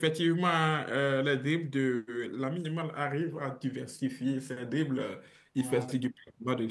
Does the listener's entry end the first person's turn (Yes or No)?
No